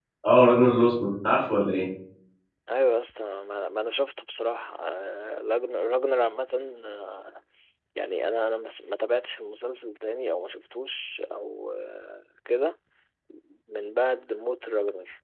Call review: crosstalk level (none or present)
none